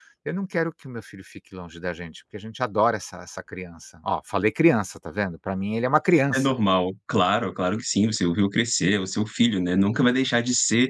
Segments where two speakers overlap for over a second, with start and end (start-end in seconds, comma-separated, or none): none